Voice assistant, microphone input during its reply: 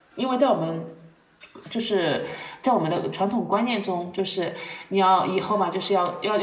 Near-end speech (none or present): present